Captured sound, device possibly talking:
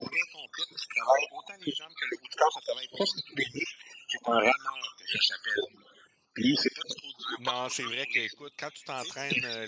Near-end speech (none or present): present